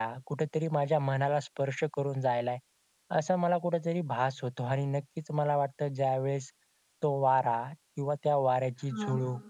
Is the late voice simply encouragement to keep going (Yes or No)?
Yes